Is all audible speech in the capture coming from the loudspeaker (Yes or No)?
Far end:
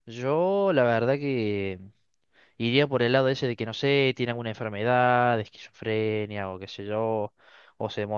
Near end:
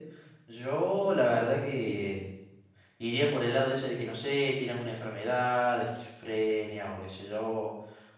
Yes